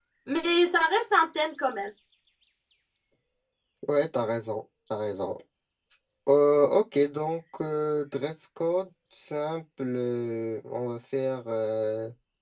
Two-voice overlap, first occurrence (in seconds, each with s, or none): none